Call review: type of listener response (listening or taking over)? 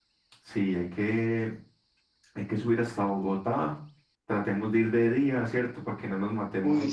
taking over